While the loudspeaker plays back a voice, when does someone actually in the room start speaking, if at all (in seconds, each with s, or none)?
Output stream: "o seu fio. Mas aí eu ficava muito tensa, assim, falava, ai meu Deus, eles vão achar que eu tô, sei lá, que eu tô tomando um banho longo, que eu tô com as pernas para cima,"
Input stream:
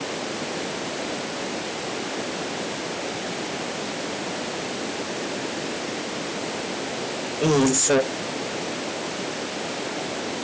7.4 s